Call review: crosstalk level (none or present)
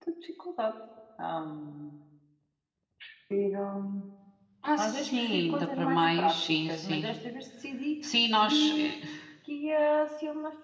present